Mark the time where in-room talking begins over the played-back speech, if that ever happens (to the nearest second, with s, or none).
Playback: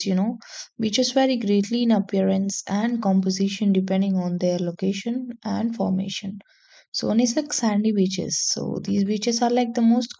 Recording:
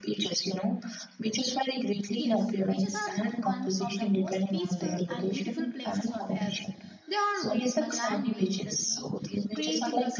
2 s